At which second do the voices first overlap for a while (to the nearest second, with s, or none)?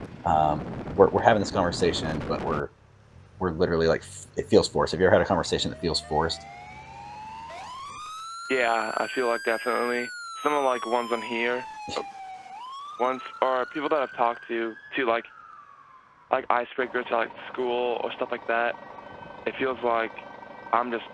none